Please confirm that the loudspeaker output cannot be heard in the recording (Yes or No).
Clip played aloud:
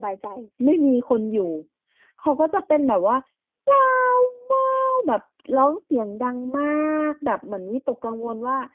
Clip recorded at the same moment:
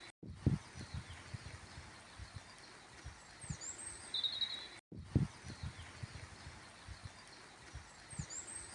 Yes